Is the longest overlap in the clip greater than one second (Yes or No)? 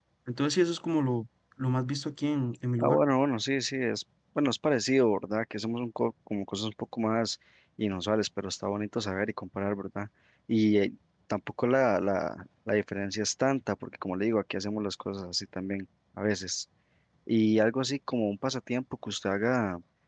No